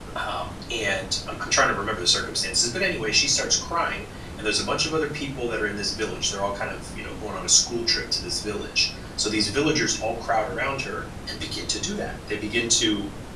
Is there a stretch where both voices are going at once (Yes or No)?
No